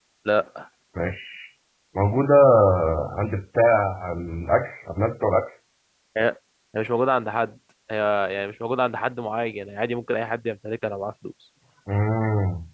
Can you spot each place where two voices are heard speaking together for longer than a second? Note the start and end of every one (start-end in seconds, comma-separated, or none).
none